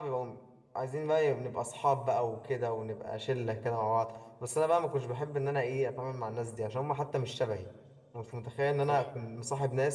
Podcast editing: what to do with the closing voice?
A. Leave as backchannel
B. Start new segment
A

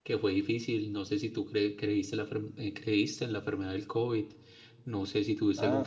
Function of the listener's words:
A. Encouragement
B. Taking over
A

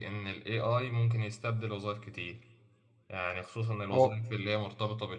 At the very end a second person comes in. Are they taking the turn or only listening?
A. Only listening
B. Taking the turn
A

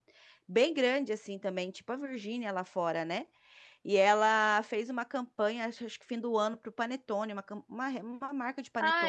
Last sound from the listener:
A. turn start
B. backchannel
A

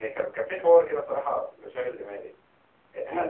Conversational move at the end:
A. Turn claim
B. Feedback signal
B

